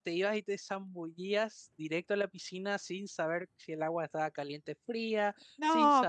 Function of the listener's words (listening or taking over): taking over